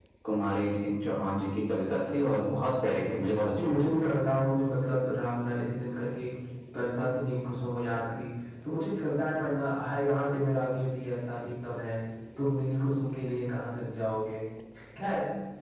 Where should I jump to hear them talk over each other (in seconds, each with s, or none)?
2.7 s